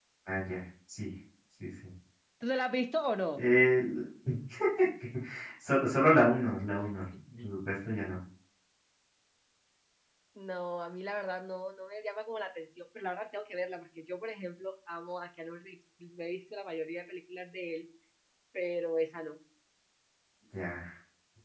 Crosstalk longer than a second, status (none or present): none